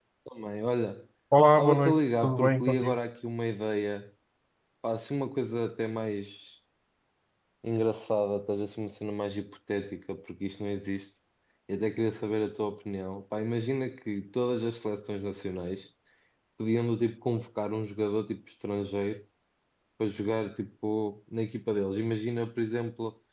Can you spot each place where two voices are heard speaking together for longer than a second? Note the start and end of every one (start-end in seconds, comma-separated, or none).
1.6-3.0